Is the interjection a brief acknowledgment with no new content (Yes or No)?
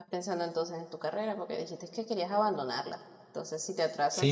No